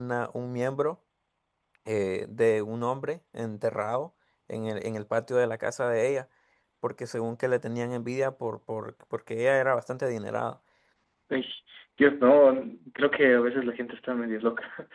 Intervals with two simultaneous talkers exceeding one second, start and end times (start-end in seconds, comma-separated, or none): none